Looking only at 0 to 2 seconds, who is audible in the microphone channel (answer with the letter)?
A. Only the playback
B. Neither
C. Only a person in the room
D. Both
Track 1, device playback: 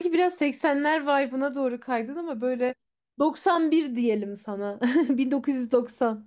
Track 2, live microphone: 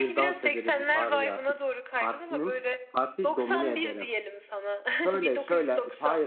D